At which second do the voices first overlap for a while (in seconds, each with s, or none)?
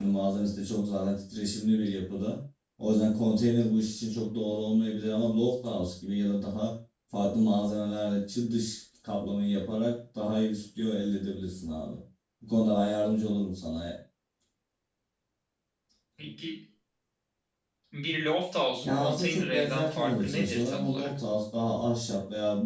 18.8 s